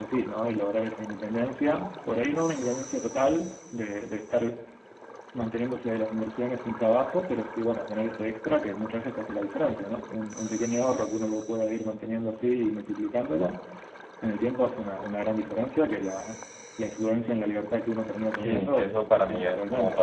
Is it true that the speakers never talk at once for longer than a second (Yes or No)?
No